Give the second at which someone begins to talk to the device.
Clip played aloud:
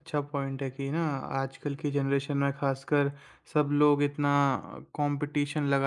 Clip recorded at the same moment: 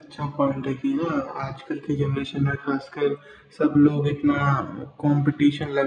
none

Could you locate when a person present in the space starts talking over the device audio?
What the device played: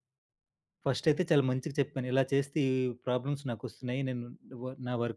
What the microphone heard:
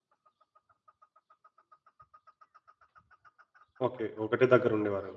3.9 s

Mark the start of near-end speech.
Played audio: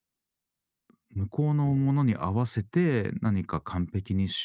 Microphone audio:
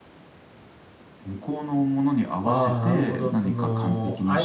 2.4 s

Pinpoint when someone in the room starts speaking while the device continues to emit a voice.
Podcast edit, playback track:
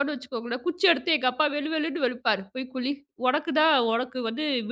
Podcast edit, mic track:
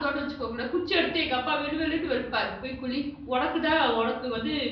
none

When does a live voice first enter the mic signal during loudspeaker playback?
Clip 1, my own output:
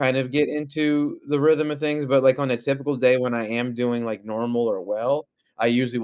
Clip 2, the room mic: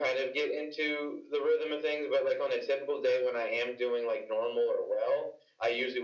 none

